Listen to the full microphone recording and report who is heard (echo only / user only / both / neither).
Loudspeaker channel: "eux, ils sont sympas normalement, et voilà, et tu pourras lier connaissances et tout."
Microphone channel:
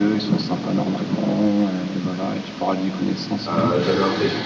both